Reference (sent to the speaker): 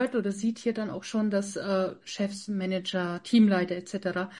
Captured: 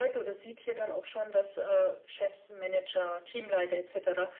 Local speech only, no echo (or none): none